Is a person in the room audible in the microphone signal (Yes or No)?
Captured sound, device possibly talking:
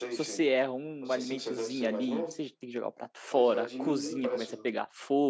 Yes